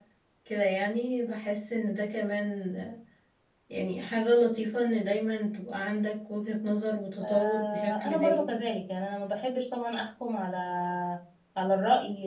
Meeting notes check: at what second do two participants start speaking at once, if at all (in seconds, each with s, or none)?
7.2 s